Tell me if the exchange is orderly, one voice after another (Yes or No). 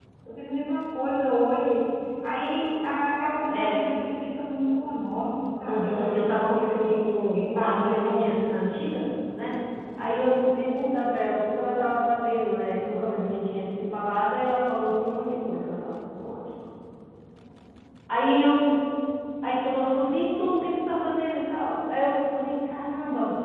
No